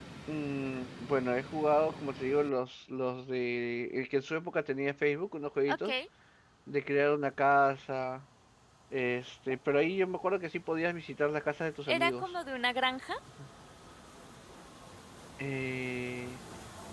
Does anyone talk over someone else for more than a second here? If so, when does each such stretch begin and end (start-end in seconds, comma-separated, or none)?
none